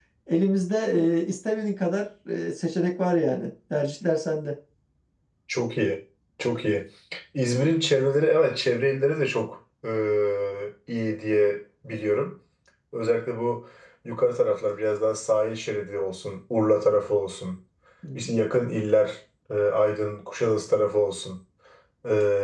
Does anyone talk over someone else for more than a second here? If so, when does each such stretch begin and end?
none

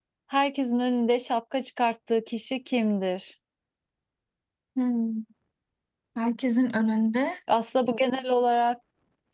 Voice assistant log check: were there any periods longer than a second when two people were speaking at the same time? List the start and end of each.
none

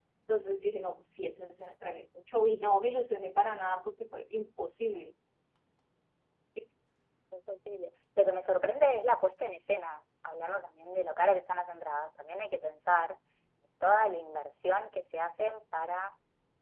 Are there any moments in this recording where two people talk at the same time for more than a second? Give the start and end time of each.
none

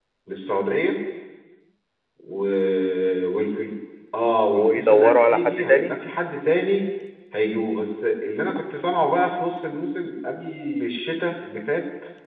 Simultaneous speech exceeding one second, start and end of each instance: 4.5-6.0

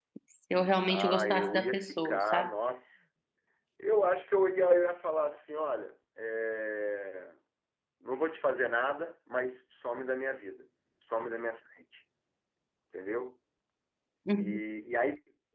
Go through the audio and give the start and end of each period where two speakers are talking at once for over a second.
0.8-2.6

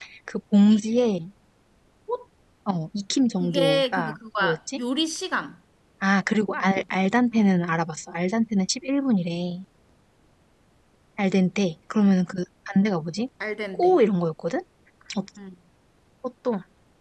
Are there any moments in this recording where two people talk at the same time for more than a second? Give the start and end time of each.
3.4-4.8

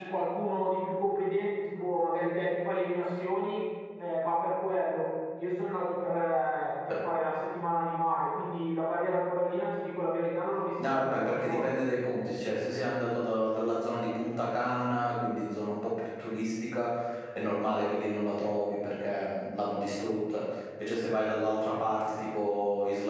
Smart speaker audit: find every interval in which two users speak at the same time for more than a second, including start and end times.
10.8-12.1

